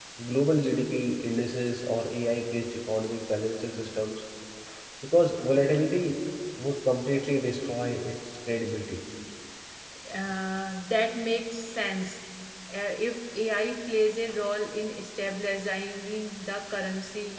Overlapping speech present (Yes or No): No